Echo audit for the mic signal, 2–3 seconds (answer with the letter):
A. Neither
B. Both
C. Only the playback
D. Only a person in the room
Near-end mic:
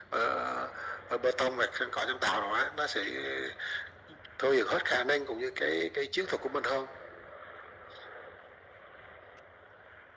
C